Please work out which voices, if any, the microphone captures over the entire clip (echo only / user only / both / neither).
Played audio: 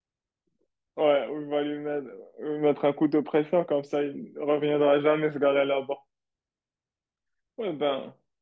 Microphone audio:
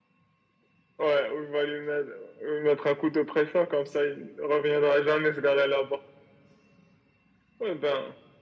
echo only